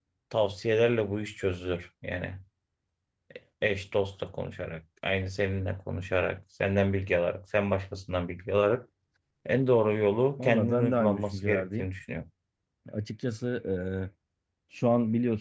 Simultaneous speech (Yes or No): Yes